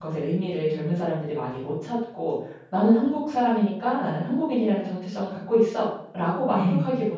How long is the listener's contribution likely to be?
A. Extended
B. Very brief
B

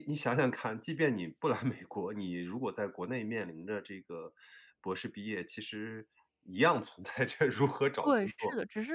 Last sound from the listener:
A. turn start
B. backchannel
A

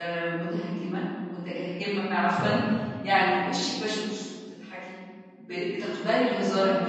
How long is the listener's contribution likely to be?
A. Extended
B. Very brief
B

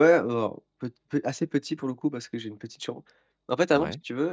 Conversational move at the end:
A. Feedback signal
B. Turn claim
A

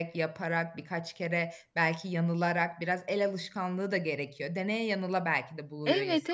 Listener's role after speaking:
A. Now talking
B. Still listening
A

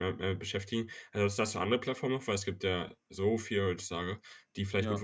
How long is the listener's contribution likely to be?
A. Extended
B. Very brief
B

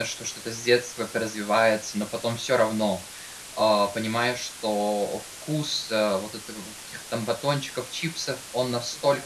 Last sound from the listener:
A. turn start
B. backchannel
B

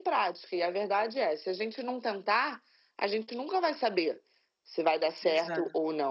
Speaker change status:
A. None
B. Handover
A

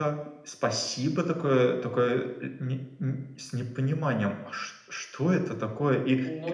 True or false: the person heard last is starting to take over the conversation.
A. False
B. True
A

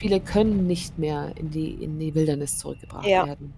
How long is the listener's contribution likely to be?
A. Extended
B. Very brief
B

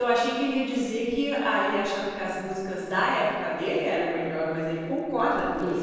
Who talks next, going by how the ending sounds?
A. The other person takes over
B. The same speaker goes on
A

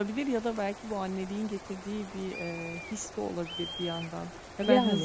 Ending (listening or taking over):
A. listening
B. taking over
A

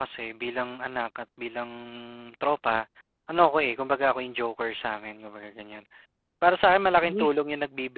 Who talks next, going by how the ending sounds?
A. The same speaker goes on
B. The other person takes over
A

